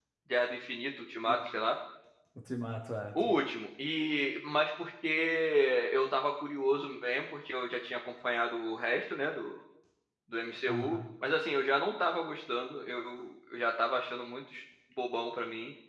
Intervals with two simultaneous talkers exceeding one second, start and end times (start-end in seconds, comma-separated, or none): none